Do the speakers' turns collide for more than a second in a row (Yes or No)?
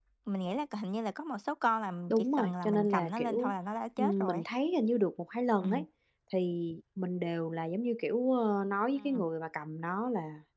Yes